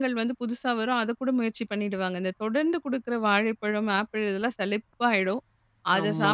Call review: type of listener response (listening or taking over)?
listening